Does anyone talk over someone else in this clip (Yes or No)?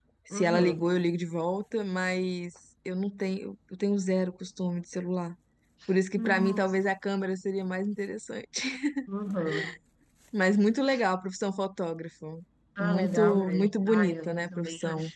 Yes